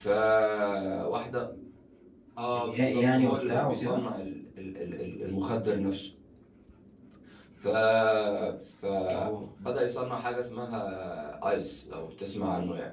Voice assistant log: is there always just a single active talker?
No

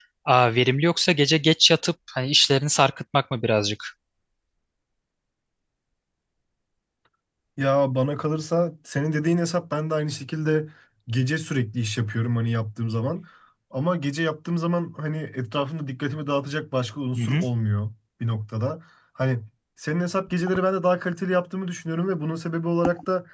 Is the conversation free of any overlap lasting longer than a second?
Yes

